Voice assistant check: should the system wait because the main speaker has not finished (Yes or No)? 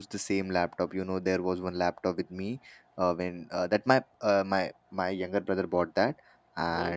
Yes